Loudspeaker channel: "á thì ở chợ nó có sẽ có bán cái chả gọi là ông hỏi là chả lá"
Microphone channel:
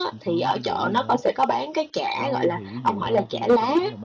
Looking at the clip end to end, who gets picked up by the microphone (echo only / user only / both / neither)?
both